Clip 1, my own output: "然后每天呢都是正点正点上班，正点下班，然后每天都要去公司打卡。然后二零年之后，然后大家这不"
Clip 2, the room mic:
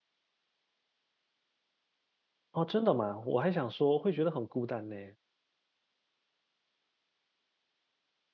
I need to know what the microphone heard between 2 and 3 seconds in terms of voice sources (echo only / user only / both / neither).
user only